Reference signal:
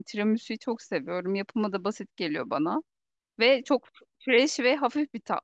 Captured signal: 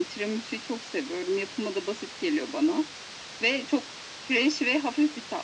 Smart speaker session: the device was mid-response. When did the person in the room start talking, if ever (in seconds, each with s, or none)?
none